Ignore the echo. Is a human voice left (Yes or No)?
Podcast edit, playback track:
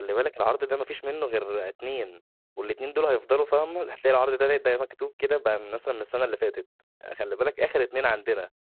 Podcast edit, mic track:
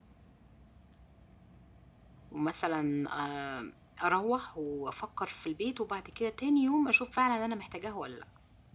Yes